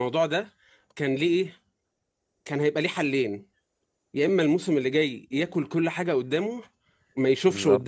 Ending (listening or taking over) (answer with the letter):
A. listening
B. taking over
A